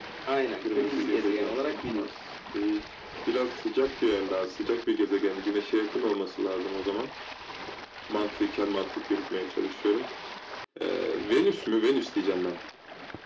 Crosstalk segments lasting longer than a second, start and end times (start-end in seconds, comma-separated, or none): 0.7-2.1